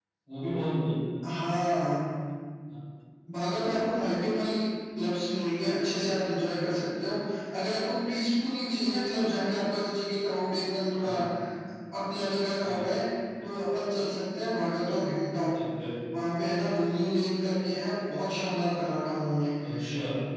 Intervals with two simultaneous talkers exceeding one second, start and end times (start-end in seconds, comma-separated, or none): none